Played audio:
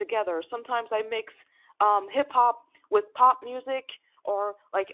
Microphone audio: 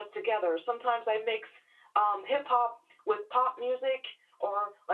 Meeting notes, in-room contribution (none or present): none